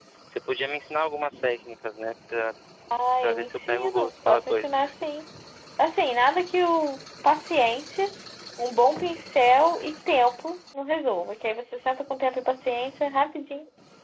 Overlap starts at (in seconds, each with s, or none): 3.2 s